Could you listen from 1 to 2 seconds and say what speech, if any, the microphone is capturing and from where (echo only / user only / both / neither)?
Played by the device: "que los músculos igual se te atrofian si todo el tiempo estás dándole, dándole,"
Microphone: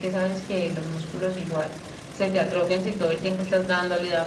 echo only